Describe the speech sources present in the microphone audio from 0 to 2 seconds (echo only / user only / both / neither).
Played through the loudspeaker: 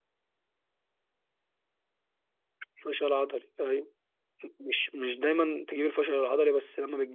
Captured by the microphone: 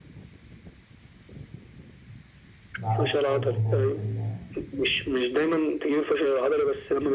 neither